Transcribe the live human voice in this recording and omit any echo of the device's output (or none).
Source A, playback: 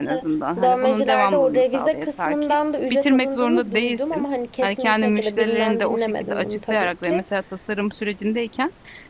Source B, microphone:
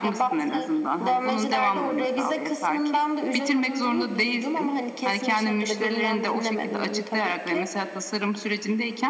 none